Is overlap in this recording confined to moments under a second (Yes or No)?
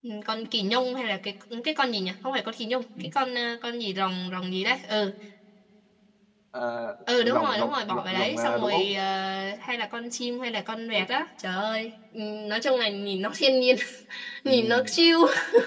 No